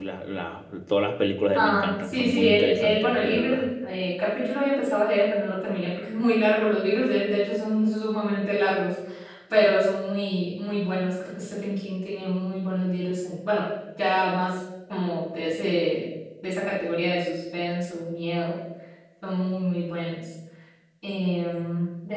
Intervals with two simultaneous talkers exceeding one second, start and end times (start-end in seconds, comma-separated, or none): 1.5-3.6